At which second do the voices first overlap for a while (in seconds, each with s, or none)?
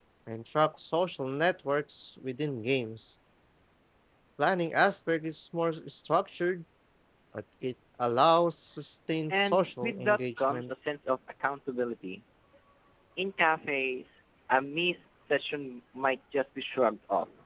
9.3 s